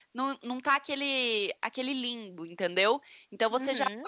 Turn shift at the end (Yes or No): No